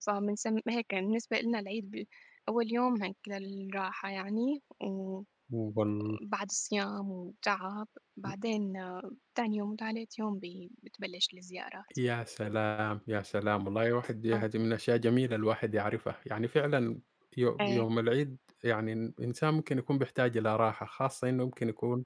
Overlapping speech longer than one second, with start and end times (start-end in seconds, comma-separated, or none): none